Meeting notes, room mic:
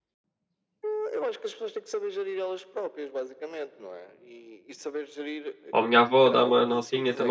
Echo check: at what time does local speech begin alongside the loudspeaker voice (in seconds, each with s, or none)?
5.7 s